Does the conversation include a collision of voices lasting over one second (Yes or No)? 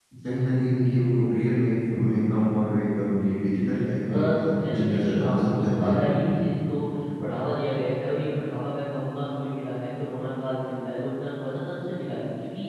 Yes